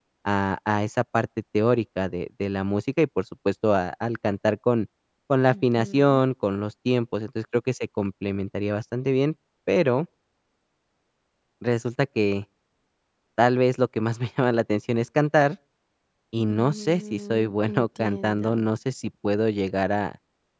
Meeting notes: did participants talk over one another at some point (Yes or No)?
Yes